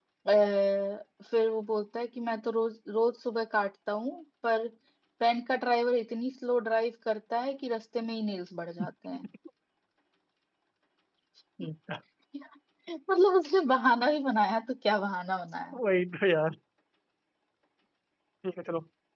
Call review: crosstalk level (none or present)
none